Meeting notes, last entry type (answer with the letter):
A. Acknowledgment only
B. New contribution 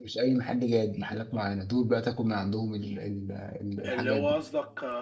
B